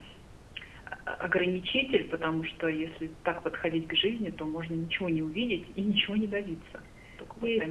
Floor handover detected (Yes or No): Yes